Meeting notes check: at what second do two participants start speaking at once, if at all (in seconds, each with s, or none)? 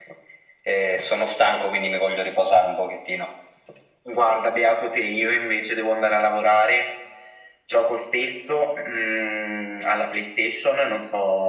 none